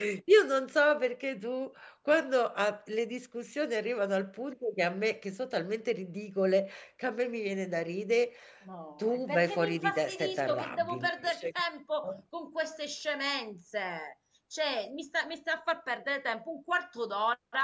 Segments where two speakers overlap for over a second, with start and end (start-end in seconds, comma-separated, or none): 9.0-11.5